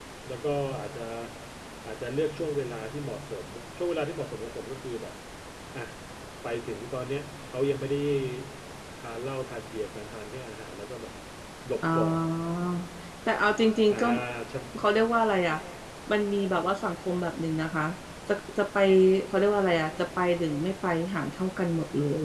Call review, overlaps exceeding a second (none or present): none